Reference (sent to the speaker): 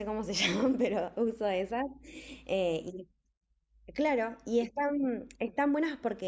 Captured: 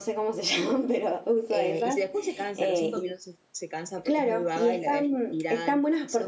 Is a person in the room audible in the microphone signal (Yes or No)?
Yes